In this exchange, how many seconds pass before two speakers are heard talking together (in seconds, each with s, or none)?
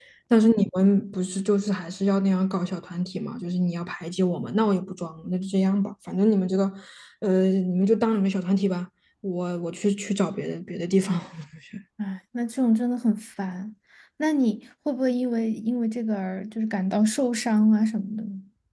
none